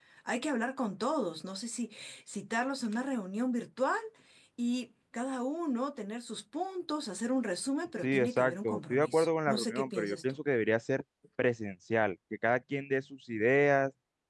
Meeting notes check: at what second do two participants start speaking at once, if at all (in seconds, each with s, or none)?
8.0 s